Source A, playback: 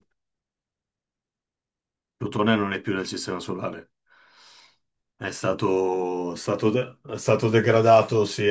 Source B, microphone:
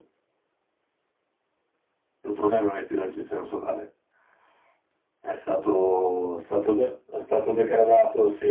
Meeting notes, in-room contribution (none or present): none